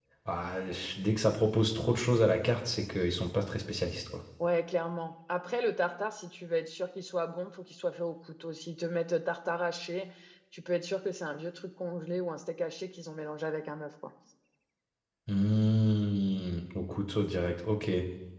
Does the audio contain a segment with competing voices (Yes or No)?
No